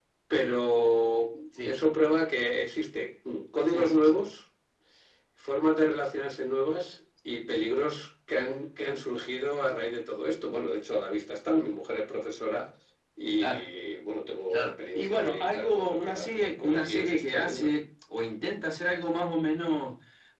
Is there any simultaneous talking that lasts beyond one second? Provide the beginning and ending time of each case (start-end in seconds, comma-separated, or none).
14.5-17.7